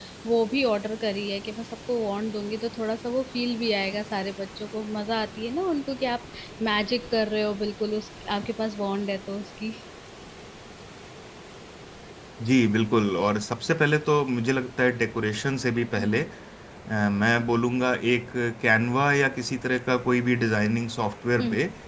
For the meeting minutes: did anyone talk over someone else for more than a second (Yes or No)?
No